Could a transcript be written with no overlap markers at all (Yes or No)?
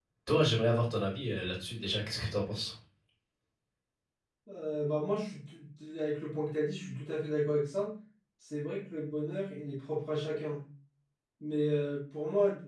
Yes